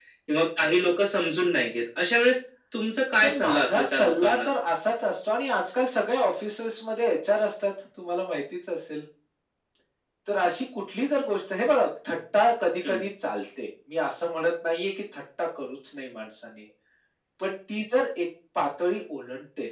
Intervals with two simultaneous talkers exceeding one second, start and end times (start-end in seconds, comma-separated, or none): 3.2-4.5